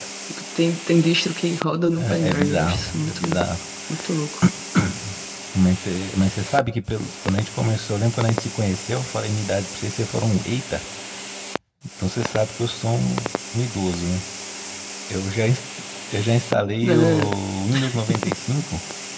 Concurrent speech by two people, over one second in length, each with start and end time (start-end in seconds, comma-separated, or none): 2.0-3.4